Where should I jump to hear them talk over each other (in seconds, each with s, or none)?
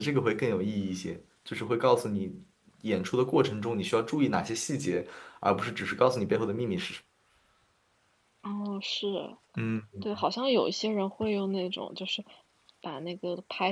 none